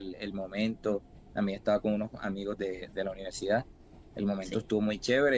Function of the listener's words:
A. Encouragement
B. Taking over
A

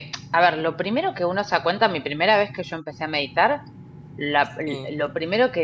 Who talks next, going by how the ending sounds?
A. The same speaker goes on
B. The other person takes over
A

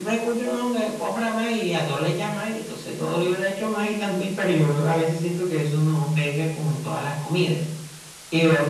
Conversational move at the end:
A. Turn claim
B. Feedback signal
A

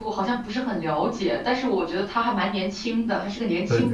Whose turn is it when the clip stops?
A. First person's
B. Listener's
B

